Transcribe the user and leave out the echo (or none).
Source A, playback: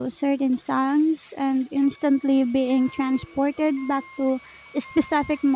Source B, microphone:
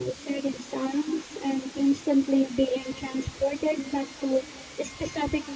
none